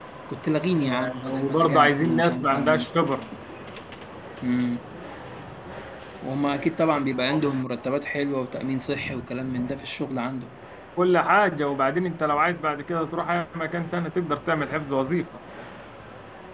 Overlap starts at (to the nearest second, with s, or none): 1 s